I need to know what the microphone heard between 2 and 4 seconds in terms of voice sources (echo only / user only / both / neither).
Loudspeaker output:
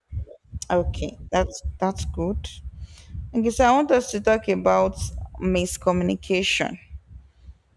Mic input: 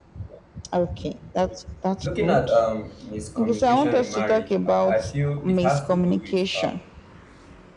both